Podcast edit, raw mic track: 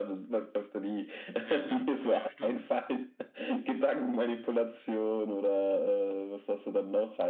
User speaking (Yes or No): Yes